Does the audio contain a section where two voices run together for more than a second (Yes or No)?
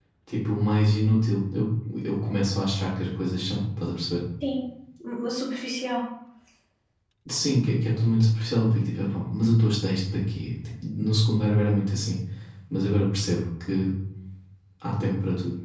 No